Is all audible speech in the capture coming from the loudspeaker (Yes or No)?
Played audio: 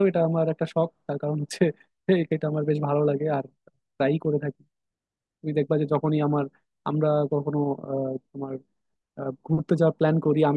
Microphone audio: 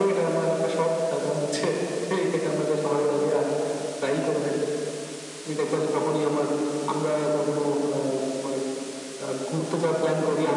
Yes